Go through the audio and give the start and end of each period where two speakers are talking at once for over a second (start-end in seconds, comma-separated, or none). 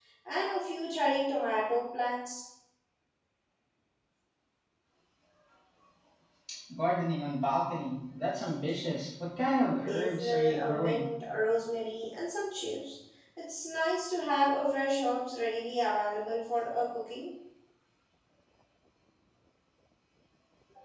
9.4-11.1